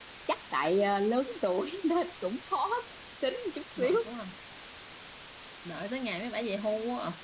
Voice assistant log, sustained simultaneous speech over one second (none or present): none